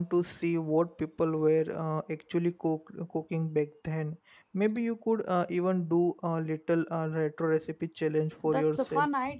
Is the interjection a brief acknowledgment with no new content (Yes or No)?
No